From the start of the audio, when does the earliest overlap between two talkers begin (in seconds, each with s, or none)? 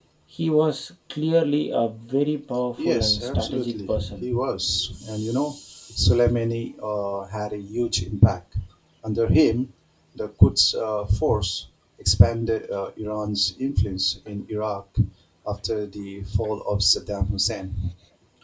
2.8 s